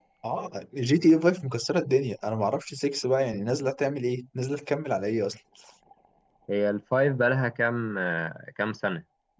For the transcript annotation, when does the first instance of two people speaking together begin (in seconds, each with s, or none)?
none